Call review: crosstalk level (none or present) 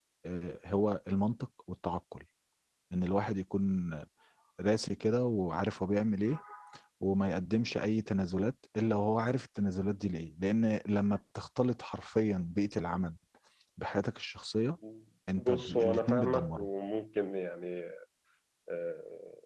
present